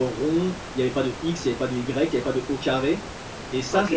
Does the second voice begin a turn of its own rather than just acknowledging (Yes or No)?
Yes